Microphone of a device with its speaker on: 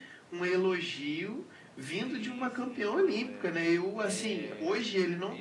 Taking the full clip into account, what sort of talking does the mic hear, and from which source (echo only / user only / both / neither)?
both